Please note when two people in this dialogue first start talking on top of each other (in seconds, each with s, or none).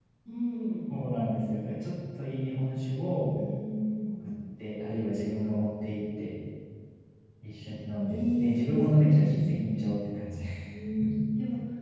8.1 s